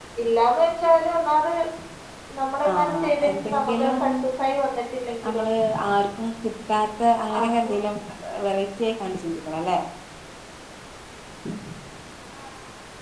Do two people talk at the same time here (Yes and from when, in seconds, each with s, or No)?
Yes, from 2.7 s